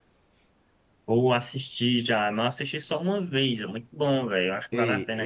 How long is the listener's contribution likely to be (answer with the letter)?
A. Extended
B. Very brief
A